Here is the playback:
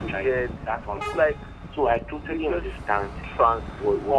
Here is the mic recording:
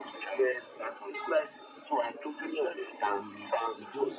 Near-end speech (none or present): present